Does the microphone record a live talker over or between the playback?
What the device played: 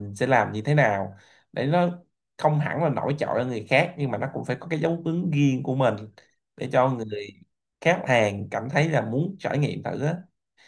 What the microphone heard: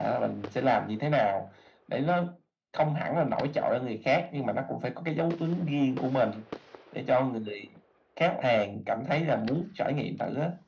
No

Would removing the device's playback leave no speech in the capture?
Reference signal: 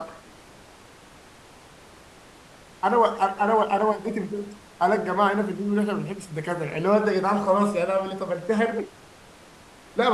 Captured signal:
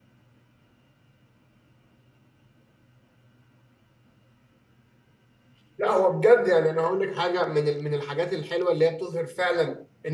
No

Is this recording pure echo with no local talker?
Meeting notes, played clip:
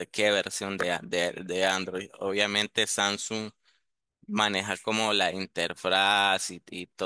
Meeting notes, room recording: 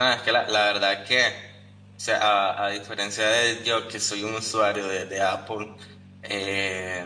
No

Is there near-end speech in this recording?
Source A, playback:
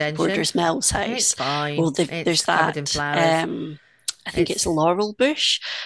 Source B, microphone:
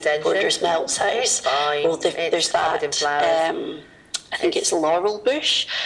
No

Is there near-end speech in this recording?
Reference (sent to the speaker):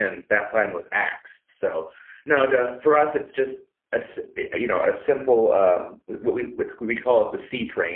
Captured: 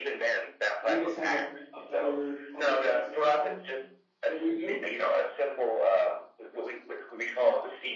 Yes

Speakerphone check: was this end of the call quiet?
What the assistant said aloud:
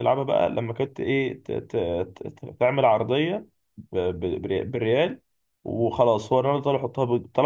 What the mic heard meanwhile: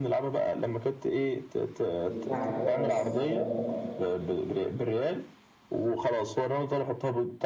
No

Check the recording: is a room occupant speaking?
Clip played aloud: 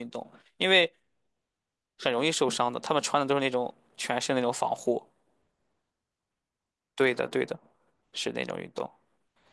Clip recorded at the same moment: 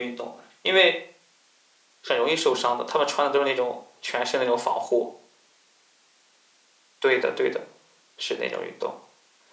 No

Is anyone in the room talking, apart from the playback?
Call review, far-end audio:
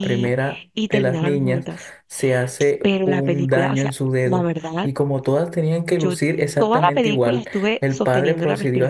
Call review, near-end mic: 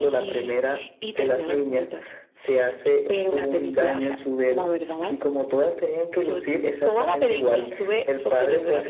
No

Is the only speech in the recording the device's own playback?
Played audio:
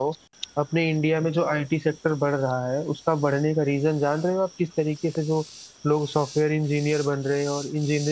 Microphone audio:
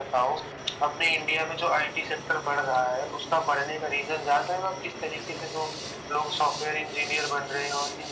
Yes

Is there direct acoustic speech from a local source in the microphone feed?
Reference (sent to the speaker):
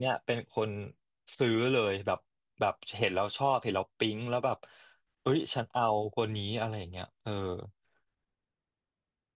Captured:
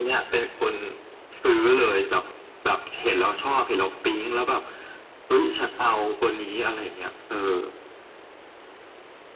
No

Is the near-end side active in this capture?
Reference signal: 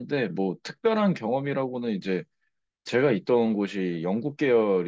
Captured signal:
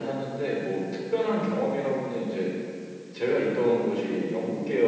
No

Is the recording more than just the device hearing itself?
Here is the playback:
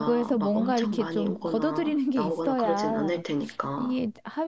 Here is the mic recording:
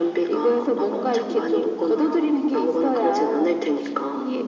No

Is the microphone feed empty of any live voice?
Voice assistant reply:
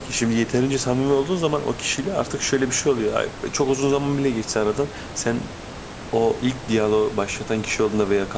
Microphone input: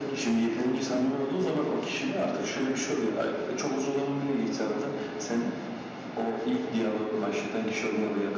Yes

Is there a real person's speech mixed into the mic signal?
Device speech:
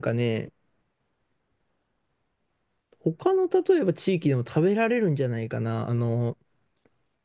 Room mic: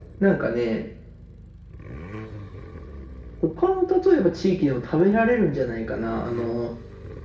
No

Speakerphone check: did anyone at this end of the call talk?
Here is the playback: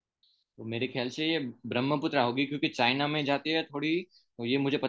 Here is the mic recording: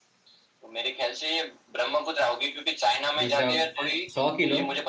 Yes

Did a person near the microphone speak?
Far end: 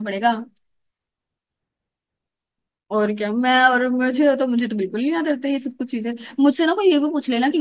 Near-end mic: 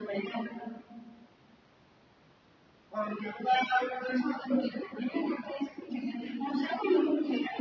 No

